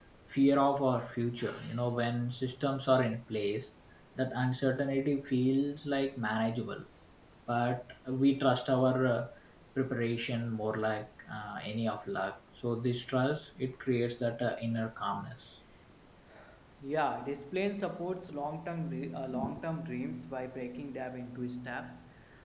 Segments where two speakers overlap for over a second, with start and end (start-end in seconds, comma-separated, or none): none